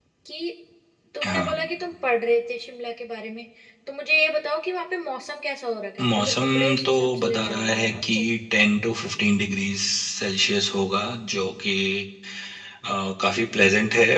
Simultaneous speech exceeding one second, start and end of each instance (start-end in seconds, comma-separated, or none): 6.1-8.1